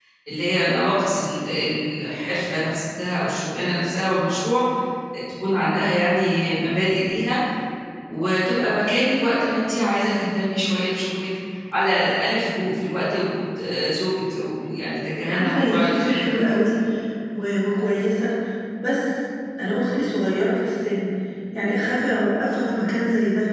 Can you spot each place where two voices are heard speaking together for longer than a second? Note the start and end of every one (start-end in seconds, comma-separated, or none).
15.3-16.5